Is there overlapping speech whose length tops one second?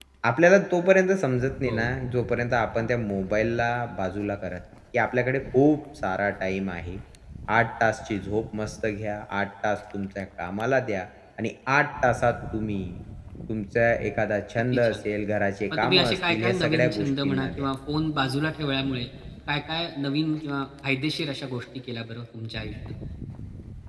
Yes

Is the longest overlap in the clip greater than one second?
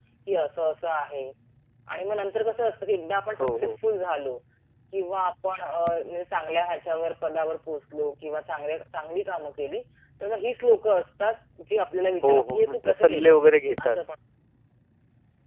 Yes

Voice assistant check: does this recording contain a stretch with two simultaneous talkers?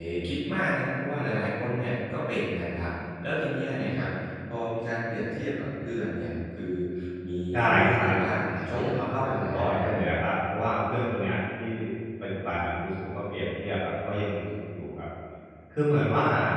Yes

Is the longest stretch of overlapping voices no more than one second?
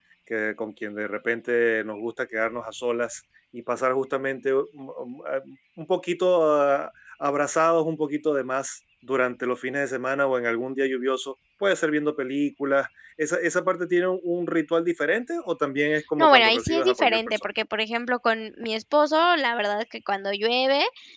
No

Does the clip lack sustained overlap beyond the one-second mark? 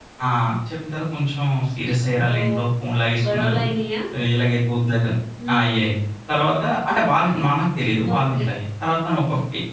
Yes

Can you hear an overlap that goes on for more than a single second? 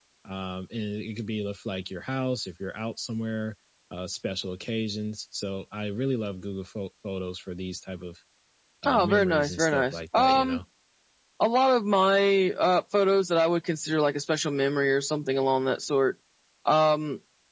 Yes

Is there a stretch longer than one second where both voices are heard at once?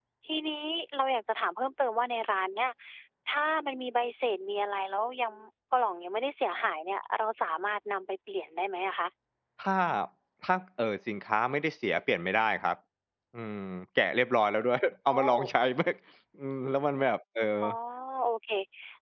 No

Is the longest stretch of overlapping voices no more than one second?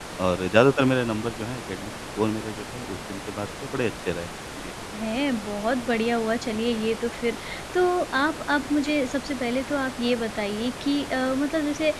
Yes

